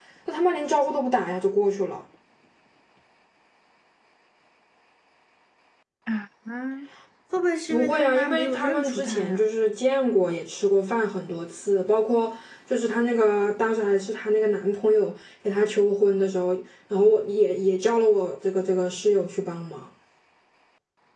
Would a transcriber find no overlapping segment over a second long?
No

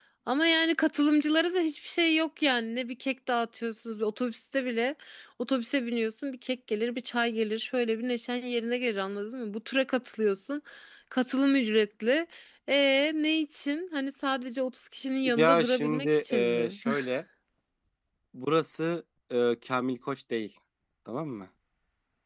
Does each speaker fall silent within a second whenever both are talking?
No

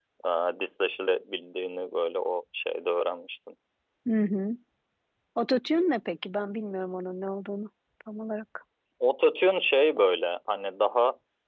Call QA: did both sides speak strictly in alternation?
Yes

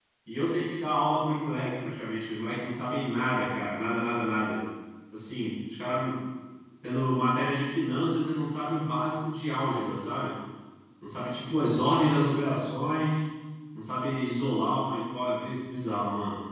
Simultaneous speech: No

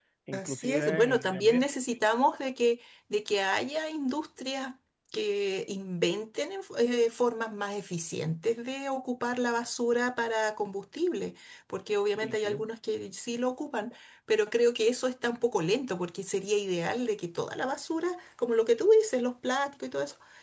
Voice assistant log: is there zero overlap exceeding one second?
No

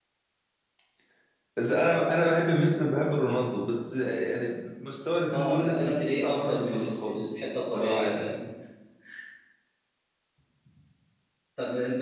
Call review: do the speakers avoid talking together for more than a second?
No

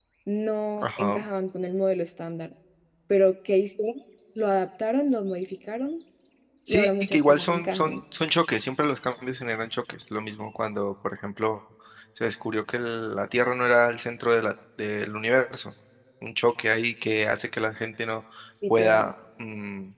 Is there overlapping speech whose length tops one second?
Yes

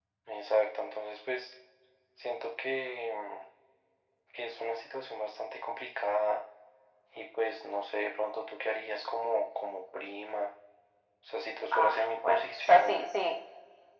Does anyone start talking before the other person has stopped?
Yes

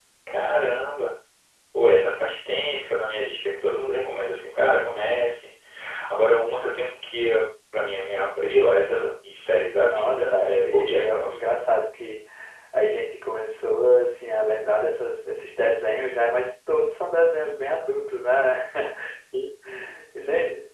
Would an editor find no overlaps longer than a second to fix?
No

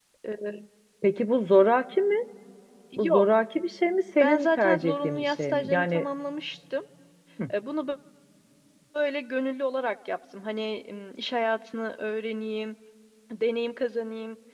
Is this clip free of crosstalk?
No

